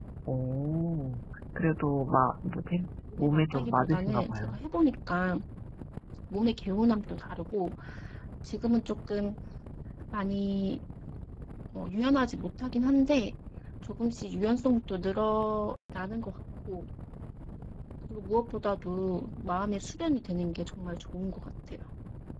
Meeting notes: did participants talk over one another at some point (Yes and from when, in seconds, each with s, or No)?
Yes, from 3.1 s